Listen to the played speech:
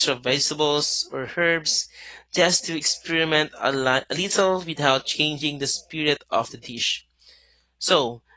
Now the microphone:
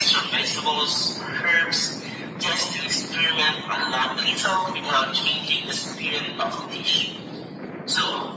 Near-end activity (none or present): none